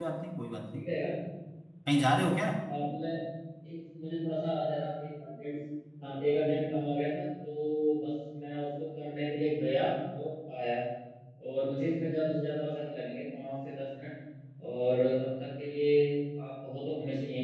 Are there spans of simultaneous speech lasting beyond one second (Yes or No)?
No